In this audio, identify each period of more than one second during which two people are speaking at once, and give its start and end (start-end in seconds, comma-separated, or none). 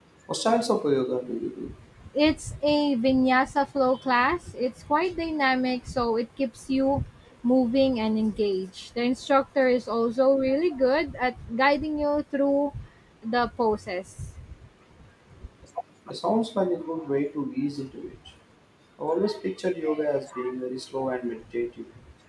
none